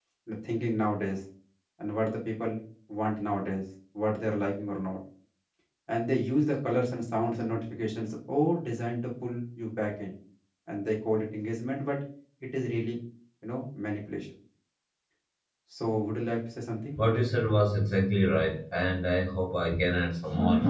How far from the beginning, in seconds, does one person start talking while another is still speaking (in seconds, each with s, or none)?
none